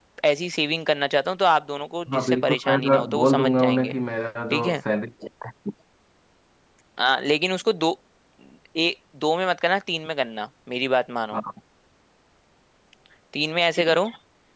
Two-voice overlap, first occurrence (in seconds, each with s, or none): 2.1 s